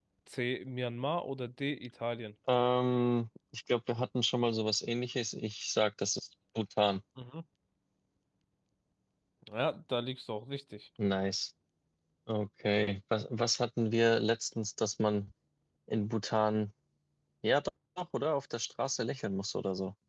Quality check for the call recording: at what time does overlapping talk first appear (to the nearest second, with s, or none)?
none